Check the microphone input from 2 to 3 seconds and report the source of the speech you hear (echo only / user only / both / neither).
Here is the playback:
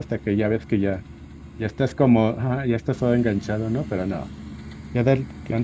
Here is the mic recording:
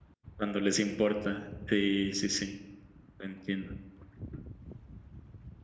user only